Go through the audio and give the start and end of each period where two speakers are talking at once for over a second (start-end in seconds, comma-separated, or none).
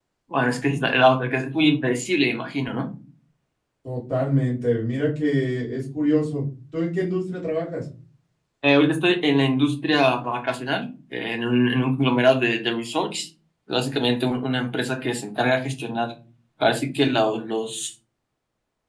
none